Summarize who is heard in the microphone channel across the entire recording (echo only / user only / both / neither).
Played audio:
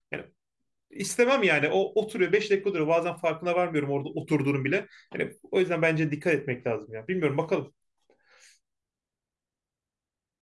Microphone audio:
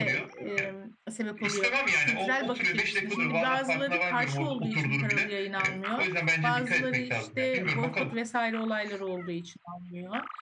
both